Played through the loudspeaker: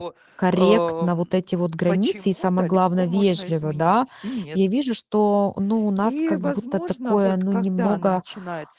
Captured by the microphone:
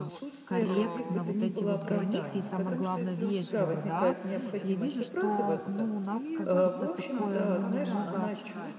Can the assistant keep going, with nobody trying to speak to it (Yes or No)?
No